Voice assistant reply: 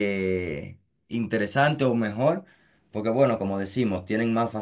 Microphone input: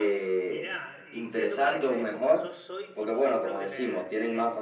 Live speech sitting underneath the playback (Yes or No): Yes